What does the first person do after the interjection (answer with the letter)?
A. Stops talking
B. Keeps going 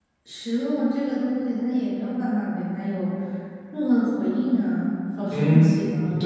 A